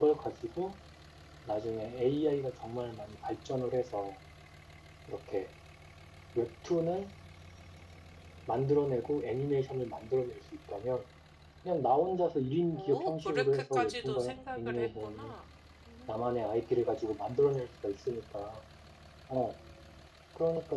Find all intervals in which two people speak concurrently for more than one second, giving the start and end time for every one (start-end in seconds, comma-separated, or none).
12.7-15.3